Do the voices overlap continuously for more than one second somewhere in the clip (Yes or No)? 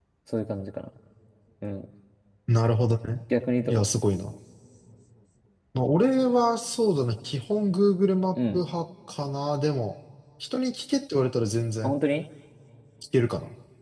No